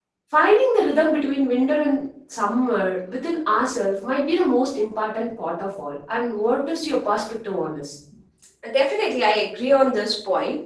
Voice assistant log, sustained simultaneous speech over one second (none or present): none